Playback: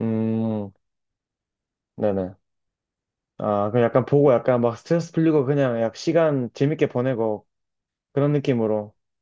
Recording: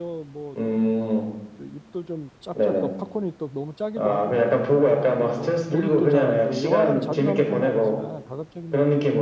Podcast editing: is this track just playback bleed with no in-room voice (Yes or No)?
No